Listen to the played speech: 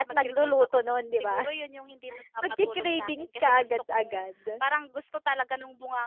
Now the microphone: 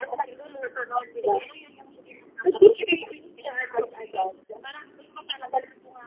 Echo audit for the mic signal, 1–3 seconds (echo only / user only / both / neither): echo only